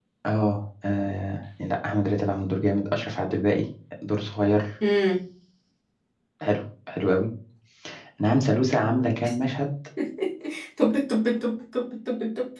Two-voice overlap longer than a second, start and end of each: none

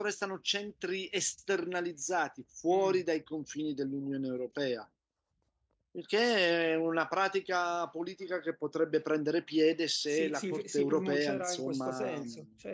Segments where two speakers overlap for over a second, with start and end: 10.1-12.2

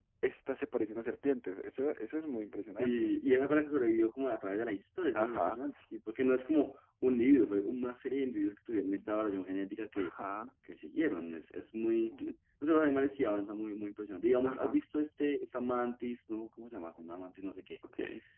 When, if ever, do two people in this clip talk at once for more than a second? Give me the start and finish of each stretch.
none

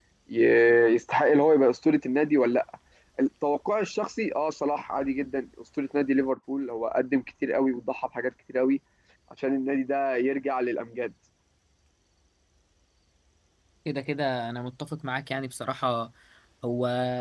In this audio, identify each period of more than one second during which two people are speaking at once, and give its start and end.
none

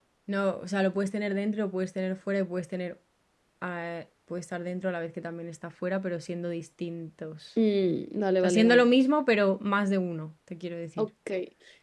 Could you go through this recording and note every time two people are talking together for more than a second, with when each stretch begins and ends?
none

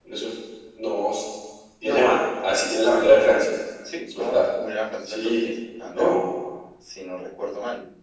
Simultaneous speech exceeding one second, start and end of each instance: none

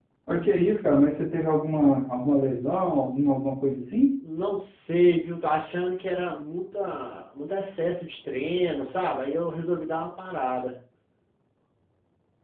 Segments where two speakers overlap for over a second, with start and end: none

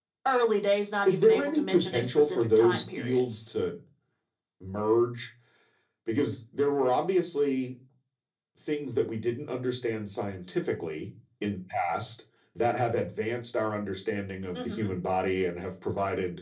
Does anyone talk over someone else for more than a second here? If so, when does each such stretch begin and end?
1.1-3.2

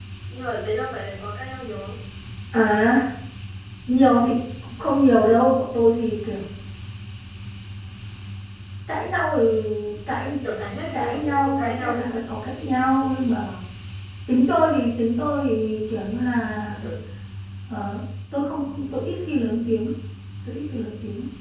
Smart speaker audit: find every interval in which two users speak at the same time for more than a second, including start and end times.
10.9-12.2

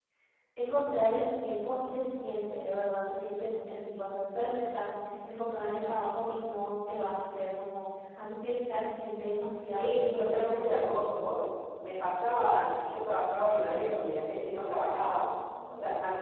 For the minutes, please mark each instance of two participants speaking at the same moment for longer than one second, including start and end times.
9.7-11.1

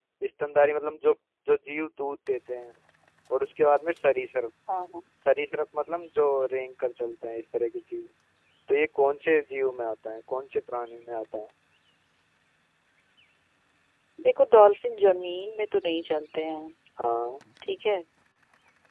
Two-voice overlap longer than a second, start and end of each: none

